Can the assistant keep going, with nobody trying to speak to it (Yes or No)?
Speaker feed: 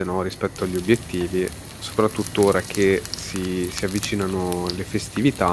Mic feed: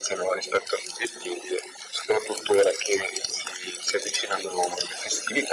Yes